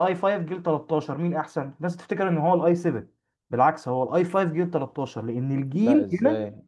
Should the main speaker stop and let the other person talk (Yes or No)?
Yes